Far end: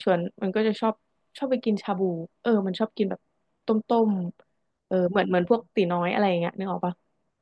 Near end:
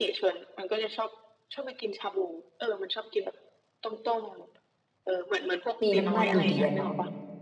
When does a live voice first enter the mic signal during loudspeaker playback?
5.8 s

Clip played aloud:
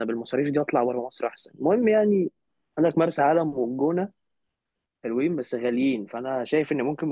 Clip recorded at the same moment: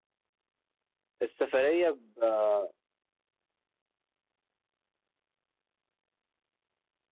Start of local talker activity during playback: 1.2 s

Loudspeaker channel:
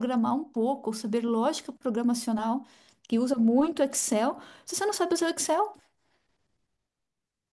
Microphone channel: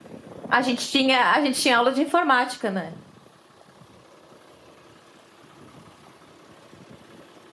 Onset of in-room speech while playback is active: 0.5 s

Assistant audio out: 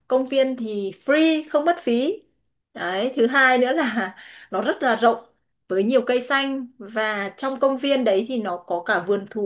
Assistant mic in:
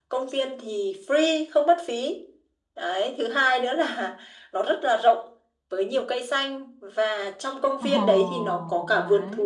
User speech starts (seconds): 7.8 s

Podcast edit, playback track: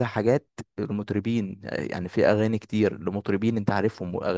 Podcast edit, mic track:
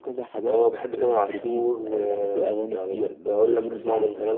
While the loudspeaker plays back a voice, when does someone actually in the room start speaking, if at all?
0.5 s

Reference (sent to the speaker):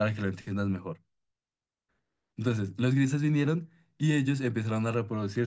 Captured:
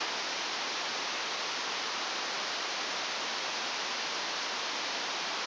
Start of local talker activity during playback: none

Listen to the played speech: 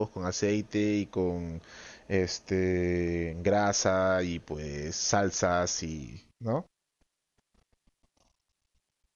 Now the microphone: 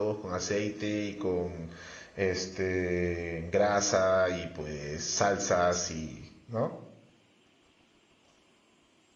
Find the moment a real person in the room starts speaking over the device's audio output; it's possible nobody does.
none

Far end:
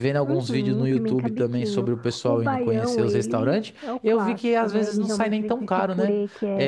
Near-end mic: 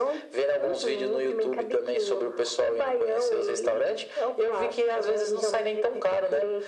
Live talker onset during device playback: none

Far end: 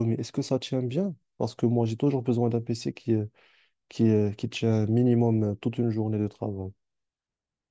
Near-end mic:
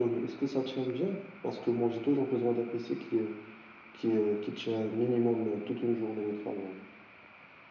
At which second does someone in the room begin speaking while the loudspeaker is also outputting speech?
none

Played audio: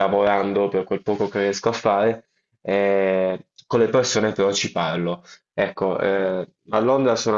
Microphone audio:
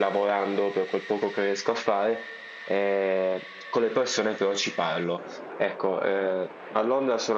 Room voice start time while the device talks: none

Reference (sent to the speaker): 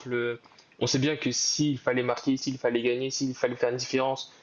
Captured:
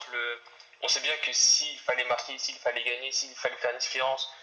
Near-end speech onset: none

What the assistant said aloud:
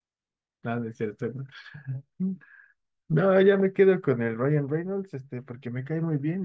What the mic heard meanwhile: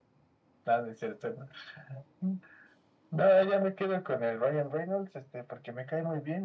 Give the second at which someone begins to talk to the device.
none

